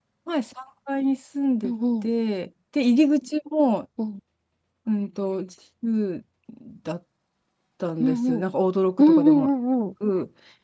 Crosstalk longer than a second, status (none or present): none